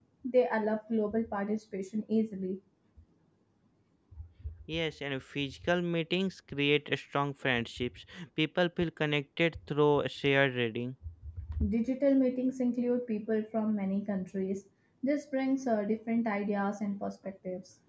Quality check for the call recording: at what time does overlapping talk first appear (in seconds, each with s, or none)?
none